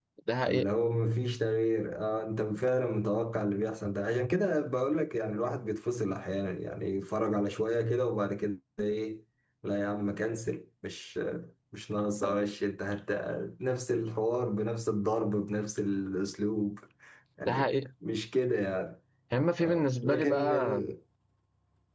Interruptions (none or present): present